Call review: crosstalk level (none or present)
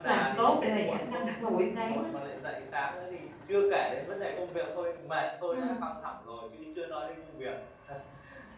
present